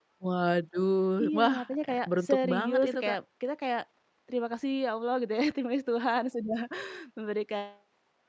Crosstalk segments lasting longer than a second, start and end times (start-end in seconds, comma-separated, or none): 1.2-3.2